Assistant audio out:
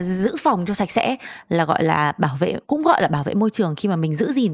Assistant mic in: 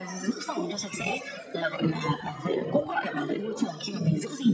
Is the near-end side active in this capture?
No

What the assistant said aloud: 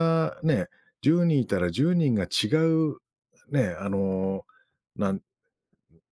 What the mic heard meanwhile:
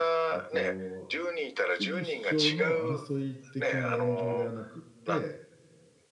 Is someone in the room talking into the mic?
Yes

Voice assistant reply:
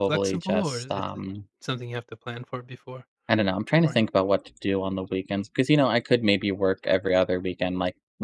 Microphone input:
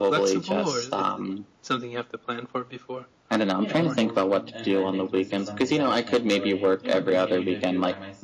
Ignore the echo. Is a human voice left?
Yes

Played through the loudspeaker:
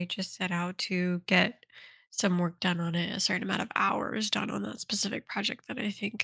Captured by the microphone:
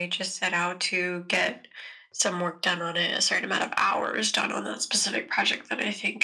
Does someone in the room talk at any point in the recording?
No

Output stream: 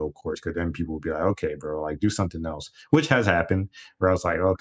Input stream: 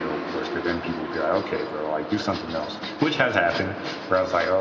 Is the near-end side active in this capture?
No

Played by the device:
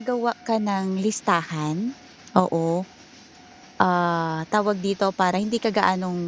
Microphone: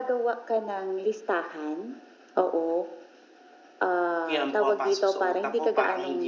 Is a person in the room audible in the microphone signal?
Yes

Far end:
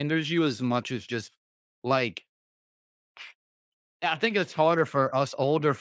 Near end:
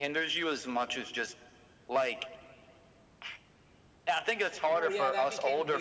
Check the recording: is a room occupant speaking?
Yes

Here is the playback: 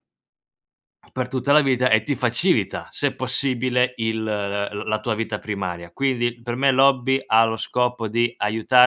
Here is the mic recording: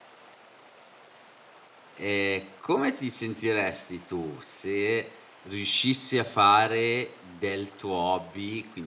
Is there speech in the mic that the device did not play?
Yes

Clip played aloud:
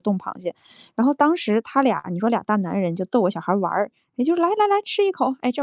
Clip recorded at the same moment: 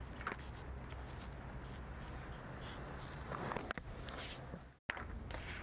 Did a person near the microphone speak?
No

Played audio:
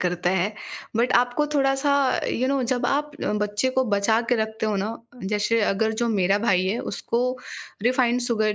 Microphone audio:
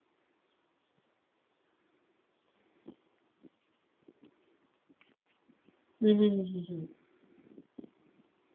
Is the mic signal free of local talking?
No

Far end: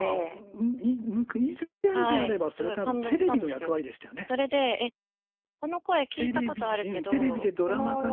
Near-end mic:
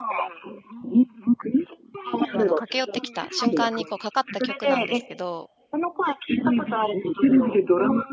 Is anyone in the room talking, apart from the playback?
Yes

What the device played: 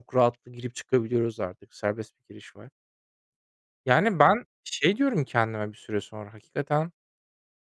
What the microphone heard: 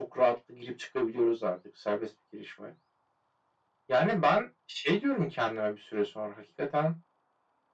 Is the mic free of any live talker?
Yes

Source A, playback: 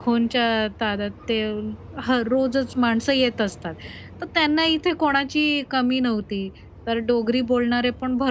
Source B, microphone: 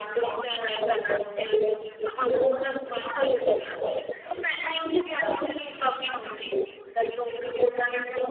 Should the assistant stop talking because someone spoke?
No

